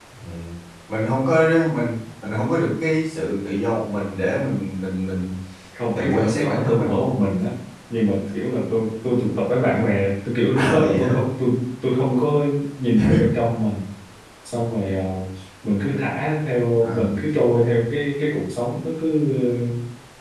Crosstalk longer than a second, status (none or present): present